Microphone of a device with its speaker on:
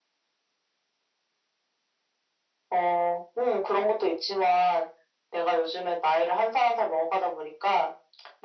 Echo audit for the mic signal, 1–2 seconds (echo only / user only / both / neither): neither